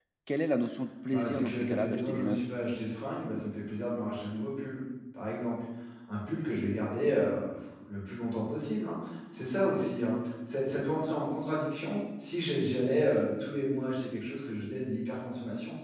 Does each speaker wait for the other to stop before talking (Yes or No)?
No